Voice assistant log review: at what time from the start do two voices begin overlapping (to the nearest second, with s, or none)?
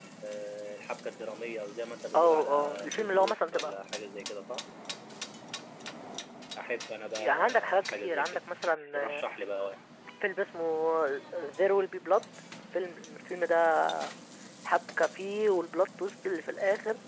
2 s